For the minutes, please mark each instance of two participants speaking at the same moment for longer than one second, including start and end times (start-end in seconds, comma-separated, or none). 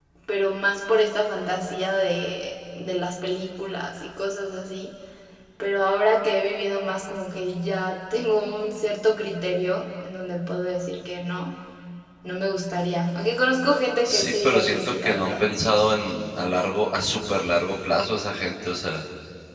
14.0-15.4